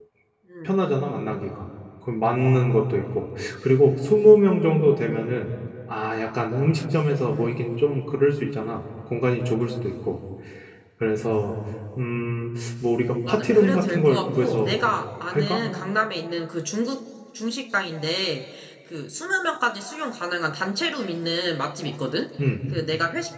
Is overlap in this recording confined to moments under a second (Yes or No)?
No